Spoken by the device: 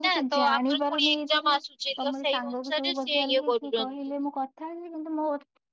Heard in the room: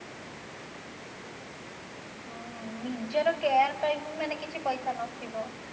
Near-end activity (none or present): present